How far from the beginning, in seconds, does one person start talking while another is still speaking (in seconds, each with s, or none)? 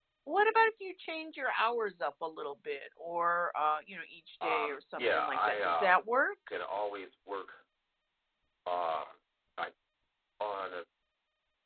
4.4 s